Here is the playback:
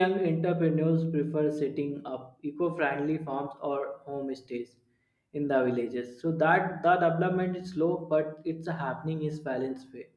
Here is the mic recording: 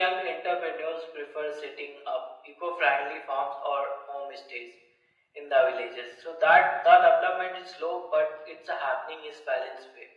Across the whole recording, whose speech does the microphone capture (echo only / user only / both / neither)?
echo only